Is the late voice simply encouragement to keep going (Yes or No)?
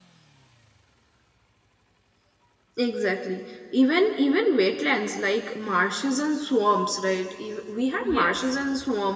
Yes